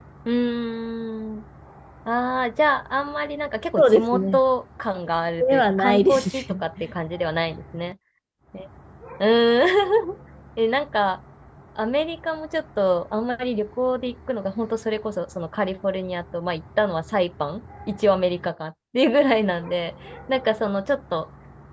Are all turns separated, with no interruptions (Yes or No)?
No